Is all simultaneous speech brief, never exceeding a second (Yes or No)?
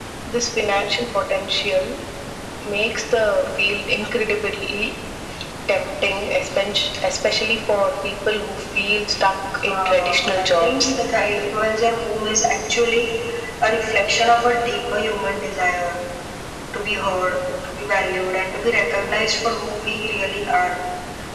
No